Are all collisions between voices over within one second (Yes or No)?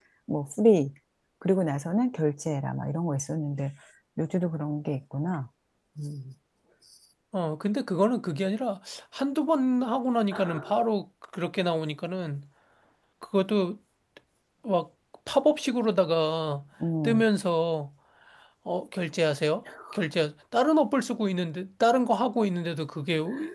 Yes